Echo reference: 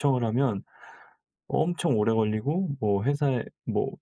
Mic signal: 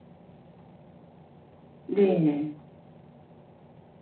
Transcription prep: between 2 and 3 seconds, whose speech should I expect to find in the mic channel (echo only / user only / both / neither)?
user only